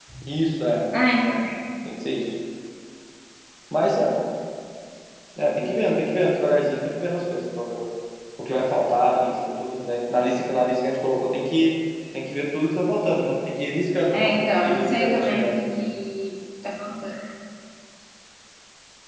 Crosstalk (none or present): present